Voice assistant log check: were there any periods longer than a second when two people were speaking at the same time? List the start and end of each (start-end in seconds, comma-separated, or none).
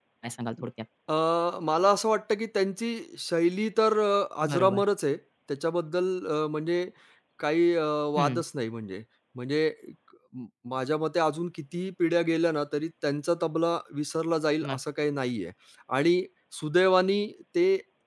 none